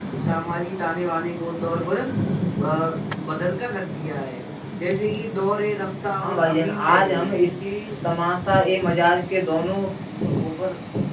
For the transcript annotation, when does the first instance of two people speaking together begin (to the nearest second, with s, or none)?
6 s